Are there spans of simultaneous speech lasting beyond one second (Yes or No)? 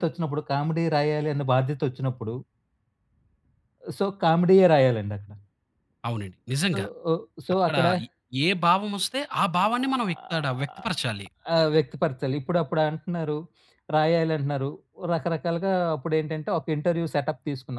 Yes